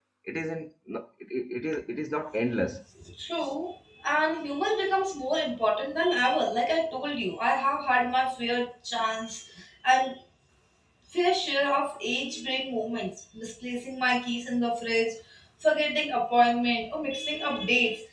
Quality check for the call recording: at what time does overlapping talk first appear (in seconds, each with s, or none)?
none